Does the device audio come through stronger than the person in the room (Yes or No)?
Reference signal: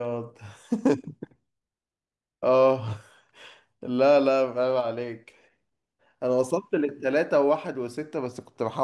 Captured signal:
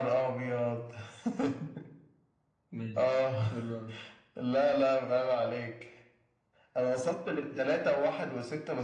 Yes